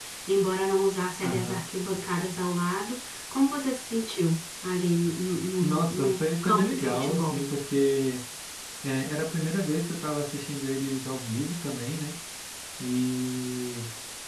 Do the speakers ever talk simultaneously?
Yes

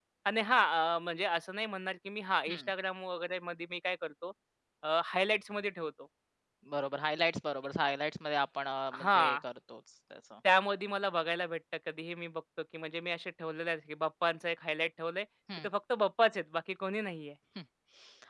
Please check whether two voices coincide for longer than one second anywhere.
No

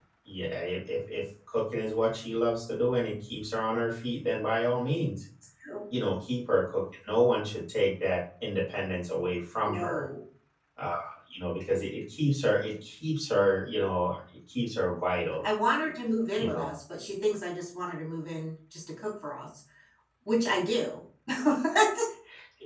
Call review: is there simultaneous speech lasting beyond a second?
No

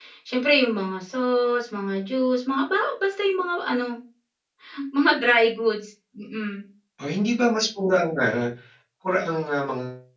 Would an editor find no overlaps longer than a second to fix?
Yes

